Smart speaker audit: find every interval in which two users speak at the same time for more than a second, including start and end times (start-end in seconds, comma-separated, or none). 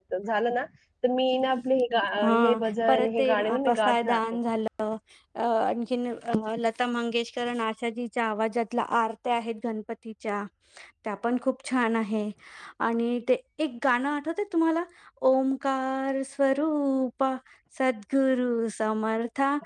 2.9-4.2